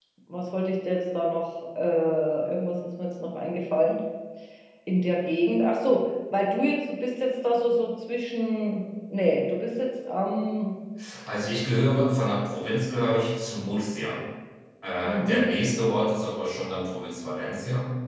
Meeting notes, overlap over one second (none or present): none